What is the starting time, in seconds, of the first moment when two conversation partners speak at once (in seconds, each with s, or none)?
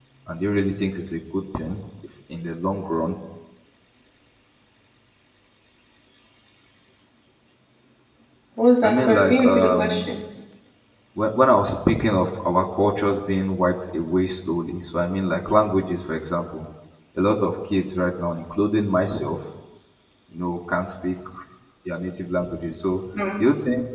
8.8 s